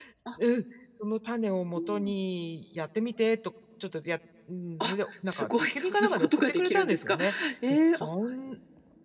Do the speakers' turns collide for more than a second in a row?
Yes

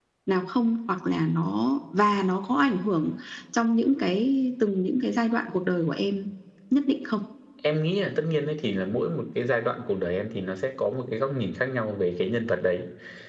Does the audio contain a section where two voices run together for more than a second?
No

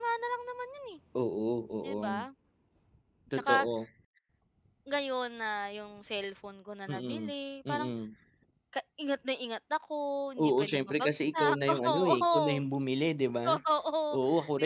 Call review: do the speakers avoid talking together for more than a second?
No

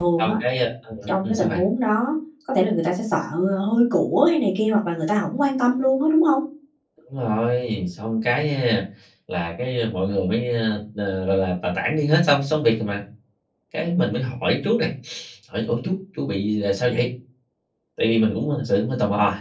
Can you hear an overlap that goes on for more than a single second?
No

